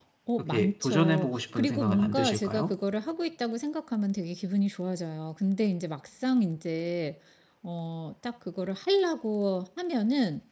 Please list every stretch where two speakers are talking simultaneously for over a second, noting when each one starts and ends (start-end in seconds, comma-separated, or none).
0.5-2.7